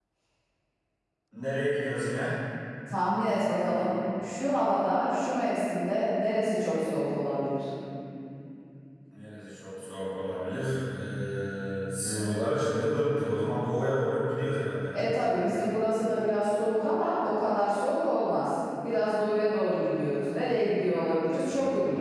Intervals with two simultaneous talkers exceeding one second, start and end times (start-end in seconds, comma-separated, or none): none